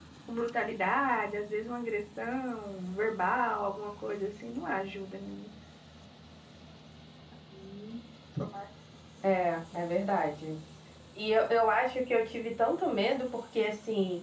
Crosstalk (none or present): none